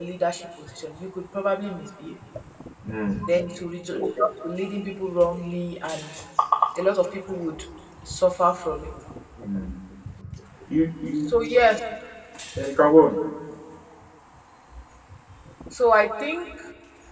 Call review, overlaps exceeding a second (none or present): none